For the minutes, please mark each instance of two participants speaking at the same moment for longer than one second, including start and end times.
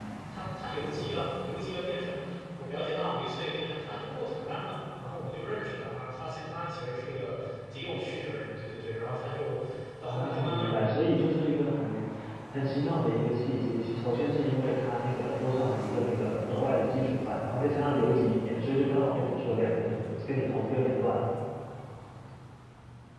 10.1-11.3

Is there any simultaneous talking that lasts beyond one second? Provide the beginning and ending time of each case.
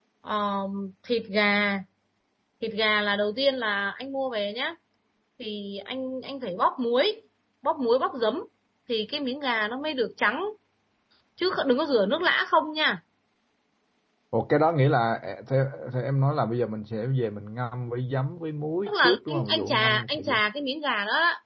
18.9-20.4

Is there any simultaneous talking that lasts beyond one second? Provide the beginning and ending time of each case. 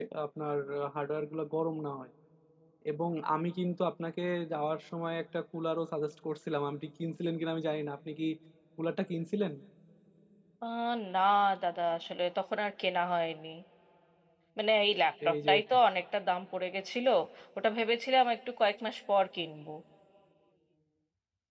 none

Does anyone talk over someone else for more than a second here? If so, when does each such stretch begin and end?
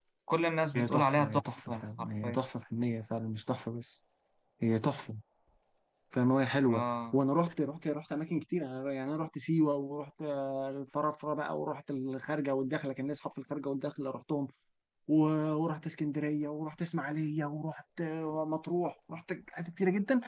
0.7-2.4

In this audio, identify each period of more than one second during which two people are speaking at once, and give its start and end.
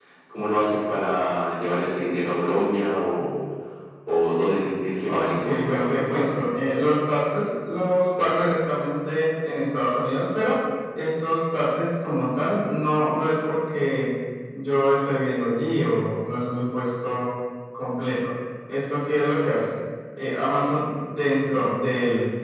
5.1-6.4

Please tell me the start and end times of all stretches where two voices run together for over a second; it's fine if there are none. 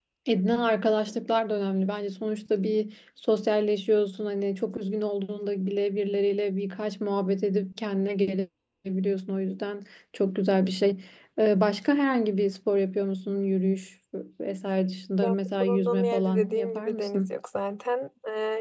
15.2-17.3

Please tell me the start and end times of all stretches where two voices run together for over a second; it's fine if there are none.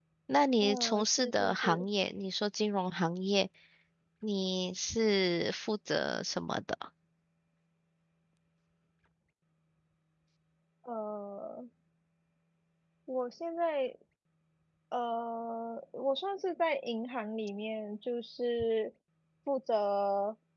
0.6-1.9

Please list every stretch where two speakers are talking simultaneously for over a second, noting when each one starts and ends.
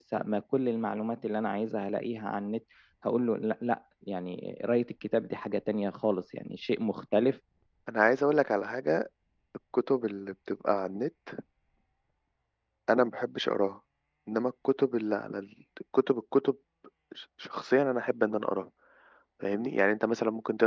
none

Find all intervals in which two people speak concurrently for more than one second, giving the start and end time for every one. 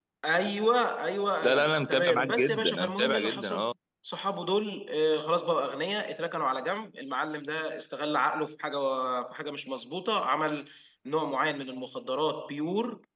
1.4-3.7

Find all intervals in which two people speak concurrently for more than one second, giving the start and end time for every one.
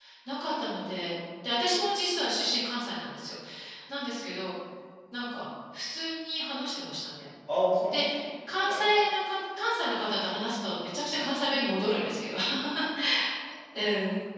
none

